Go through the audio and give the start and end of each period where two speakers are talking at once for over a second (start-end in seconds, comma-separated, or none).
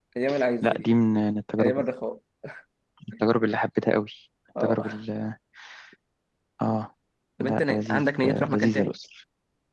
7.4-8.9